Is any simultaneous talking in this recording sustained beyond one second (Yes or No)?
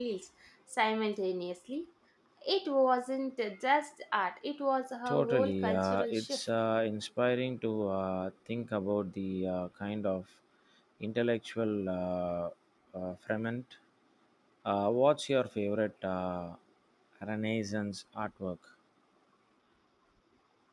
Yes